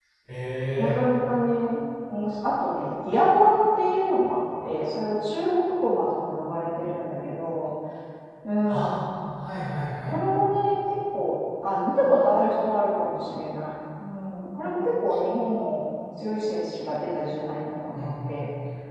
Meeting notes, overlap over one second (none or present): none